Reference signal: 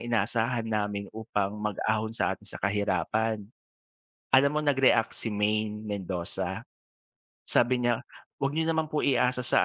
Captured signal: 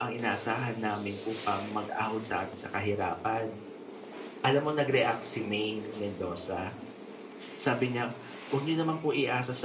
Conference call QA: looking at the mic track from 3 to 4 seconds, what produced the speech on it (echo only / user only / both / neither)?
echo only